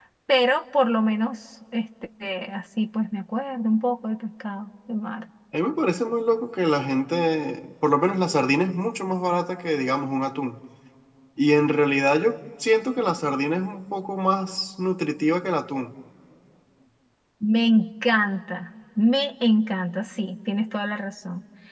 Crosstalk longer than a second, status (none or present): none